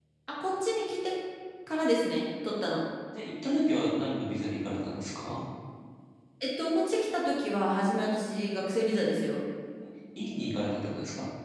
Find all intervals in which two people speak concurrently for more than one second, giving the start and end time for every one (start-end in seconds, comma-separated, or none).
none